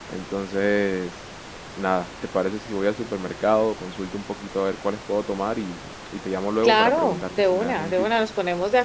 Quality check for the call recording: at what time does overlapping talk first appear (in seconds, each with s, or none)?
6.6 s